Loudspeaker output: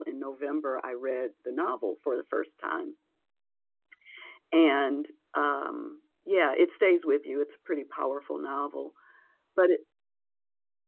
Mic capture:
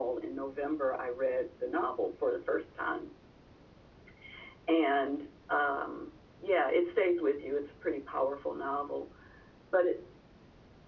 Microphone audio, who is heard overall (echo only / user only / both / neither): echo only